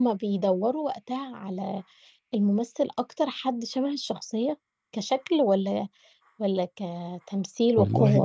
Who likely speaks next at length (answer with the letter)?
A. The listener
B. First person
A